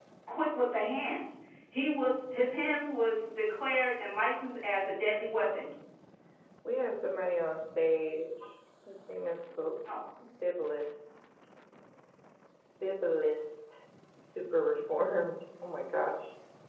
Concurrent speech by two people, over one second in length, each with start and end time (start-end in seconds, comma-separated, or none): none